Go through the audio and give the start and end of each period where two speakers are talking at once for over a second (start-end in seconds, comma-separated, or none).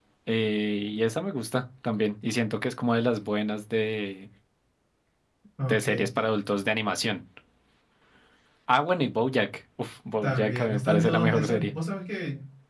10.2-11.7